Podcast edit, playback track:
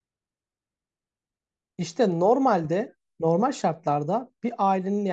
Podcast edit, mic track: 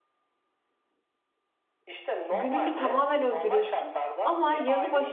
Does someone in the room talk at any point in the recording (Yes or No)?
Yes